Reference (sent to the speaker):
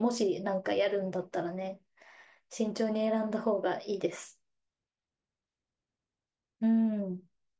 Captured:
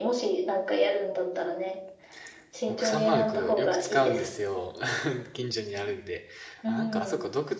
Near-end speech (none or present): present